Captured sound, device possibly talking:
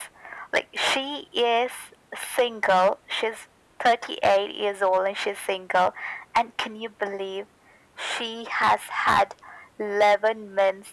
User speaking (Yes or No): No